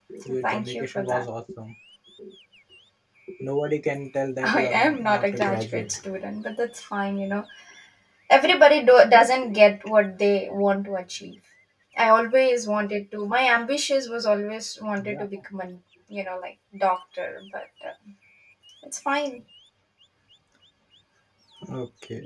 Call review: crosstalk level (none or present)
present